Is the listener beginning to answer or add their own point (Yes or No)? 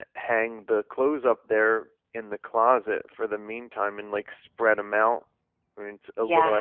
Yes